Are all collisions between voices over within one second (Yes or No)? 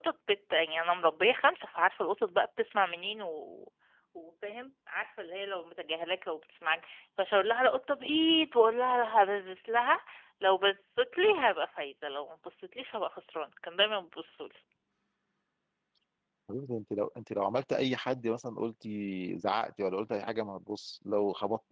Yes